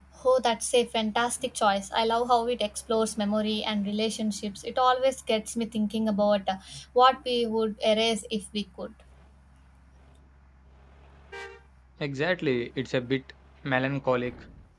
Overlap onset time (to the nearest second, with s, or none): none